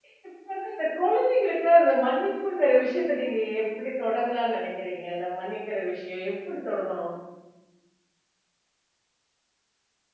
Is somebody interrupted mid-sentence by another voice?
No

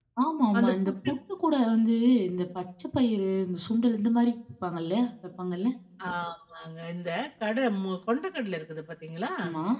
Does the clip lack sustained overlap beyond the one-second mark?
Yes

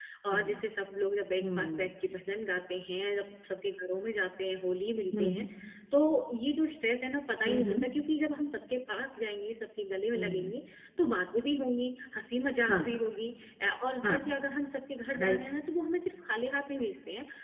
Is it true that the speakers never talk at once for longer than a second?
Yes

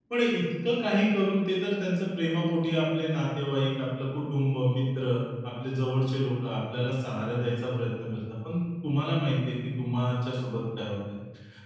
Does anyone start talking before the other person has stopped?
No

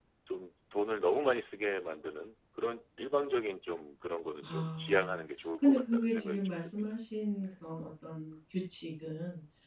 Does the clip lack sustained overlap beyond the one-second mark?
No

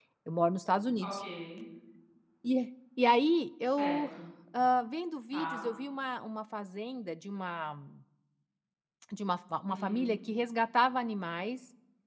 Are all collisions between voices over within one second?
Yes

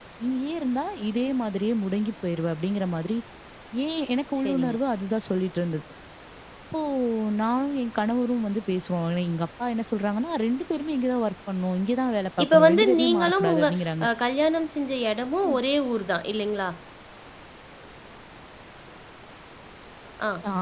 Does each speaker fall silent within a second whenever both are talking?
No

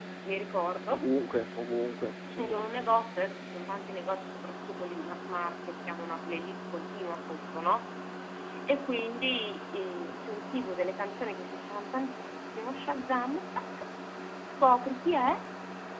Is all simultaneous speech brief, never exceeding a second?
Yes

